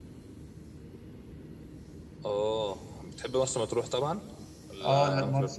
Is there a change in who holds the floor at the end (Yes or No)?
Yes